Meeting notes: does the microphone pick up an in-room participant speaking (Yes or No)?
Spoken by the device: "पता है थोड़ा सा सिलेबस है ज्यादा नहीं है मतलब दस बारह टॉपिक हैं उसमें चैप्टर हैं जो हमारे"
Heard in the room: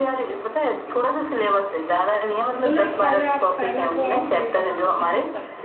Yes